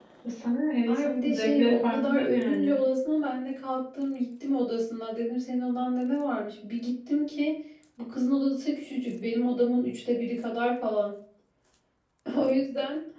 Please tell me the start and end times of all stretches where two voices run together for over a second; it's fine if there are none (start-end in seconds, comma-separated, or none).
0.9-2.8